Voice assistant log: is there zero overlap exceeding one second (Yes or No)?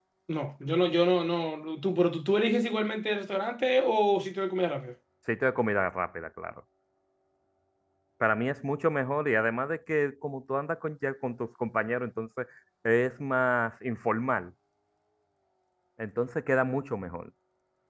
Yes